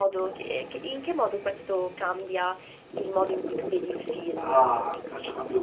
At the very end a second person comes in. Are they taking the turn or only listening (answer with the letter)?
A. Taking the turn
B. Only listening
A